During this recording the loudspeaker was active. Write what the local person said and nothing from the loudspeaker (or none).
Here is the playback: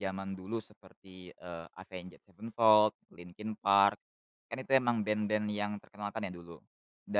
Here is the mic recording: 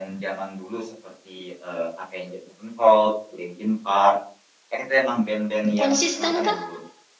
Konsisten, Kak?